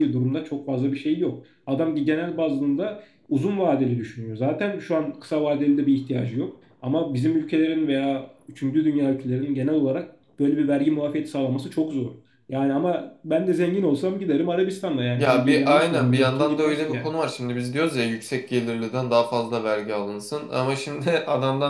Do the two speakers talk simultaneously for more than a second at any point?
Yes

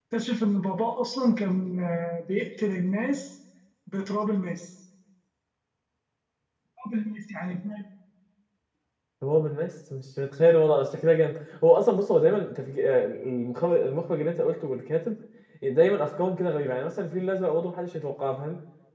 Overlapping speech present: No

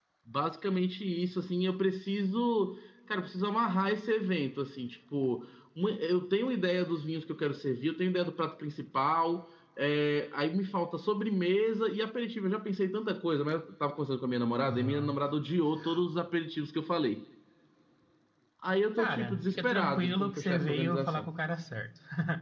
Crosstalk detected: Yes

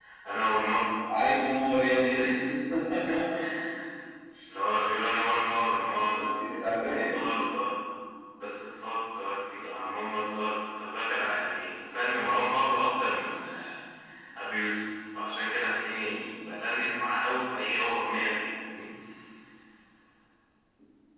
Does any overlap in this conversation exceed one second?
No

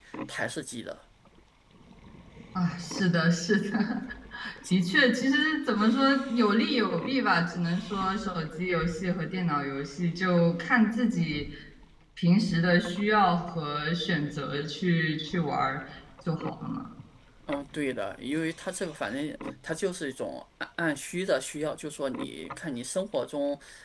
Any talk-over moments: No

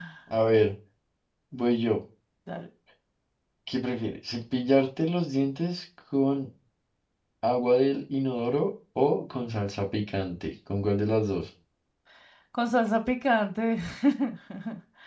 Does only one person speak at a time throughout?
Yes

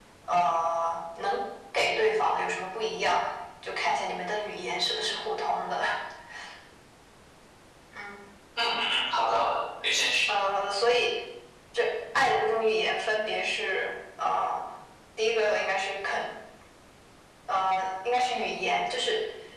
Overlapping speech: No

